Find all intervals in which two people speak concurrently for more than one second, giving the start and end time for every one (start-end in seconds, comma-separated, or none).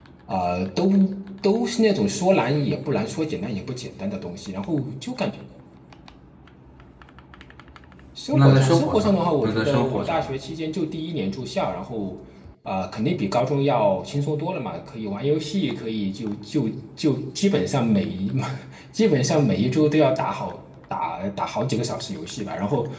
8.3-10.3